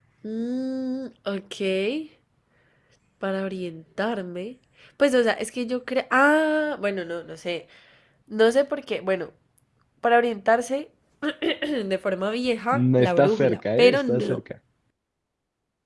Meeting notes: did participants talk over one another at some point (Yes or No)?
Yes